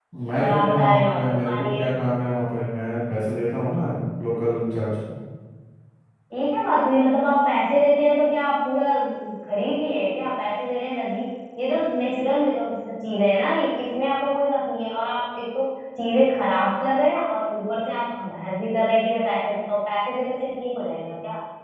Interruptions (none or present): present